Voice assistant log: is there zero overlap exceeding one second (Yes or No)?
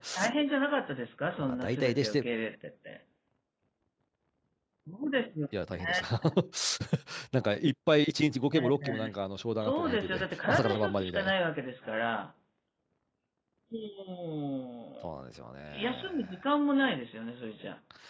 No